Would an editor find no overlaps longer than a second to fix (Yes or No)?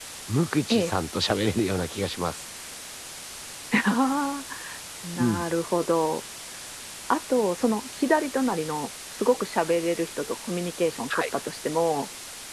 Yes